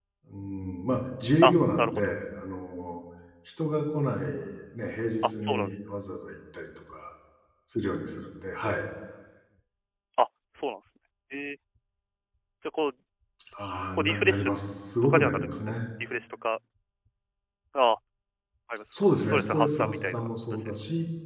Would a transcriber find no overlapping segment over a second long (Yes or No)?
No